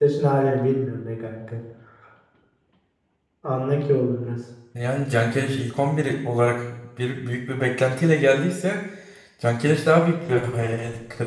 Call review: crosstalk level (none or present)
none